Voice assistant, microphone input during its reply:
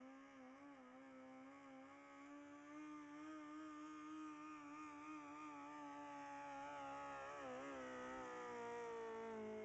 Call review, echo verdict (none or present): none